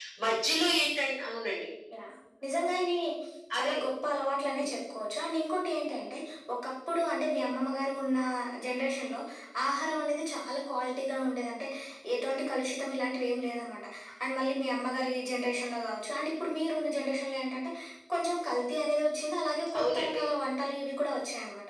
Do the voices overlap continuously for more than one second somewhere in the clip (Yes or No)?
No